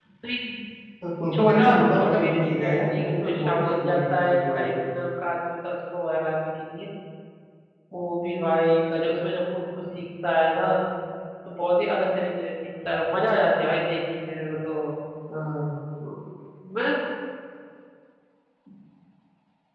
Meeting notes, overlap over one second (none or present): present